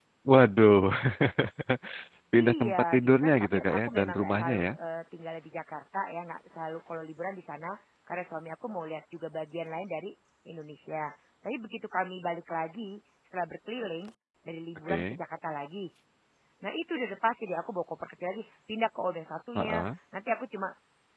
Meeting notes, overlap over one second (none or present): present